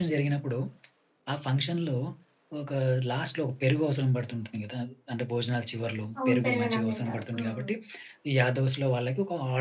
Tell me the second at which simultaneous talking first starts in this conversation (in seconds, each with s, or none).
6.2 s